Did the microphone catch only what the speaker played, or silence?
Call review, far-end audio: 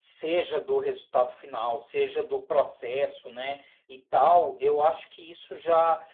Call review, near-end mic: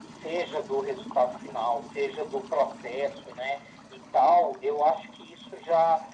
Yes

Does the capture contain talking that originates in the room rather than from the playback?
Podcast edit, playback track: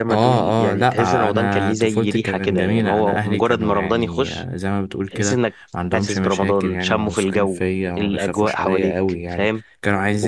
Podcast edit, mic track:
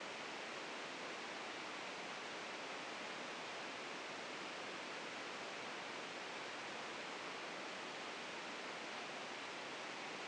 No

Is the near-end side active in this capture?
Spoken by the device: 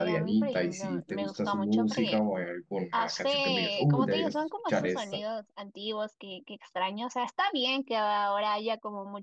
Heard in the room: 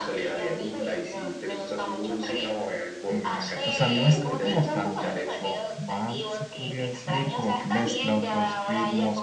Yes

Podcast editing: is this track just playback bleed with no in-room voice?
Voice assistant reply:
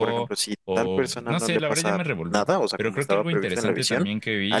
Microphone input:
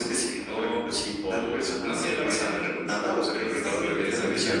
No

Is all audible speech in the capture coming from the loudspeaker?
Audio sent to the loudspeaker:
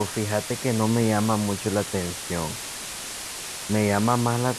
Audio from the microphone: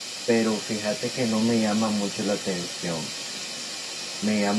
Yes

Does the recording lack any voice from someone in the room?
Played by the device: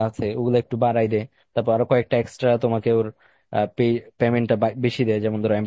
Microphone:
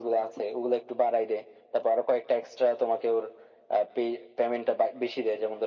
Yes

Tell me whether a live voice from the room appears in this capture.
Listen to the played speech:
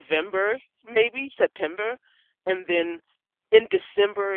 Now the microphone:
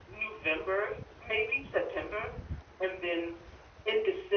No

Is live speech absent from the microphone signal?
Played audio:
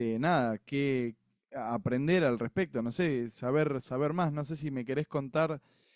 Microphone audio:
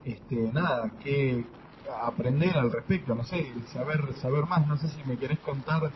Yes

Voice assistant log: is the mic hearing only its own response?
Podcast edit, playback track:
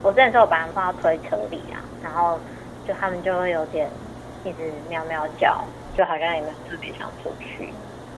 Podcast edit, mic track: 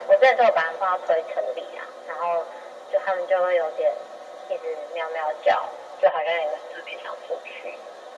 Yes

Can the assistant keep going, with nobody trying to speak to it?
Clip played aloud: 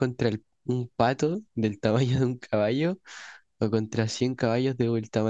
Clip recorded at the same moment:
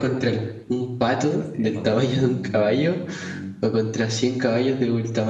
No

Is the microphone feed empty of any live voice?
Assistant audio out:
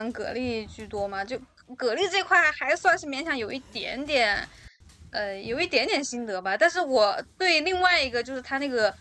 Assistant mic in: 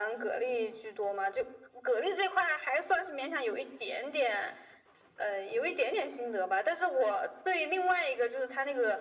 Yes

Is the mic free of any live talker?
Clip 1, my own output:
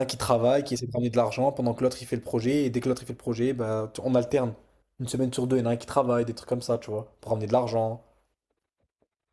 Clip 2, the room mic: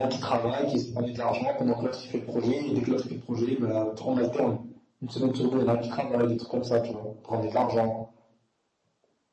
Yes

